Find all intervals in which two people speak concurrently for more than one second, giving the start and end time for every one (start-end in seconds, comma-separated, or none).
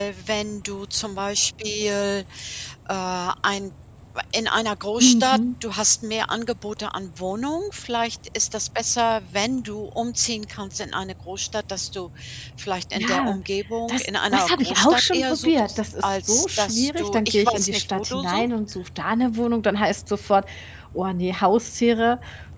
13.9-18.5